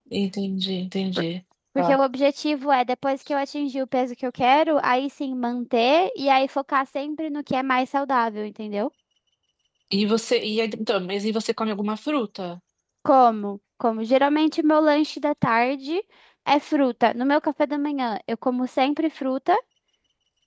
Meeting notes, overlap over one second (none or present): none